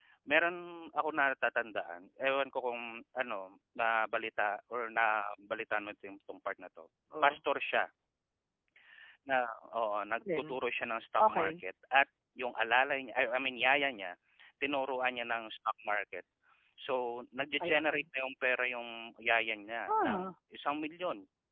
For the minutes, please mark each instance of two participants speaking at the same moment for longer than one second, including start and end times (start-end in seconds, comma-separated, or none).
none